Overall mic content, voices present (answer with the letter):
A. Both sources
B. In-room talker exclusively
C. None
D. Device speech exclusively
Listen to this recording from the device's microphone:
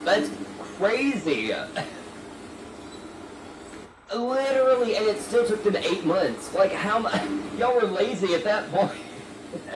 D